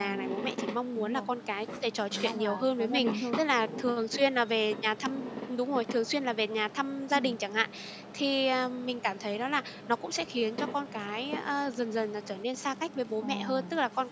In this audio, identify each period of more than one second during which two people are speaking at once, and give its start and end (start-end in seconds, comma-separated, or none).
2.1-3.4